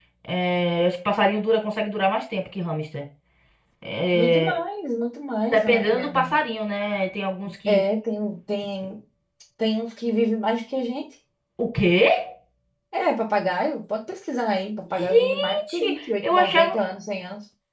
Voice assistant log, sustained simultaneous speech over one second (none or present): present